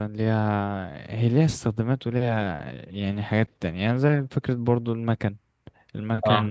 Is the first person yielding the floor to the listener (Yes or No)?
No